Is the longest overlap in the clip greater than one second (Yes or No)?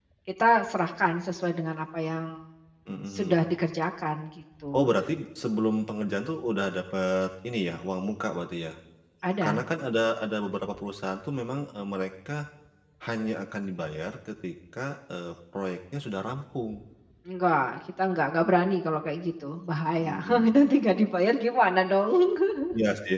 No